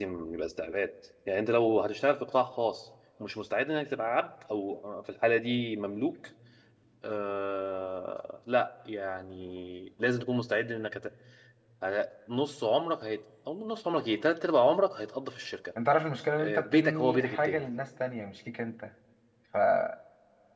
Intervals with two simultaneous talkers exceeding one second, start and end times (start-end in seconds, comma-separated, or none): 16.4-17.6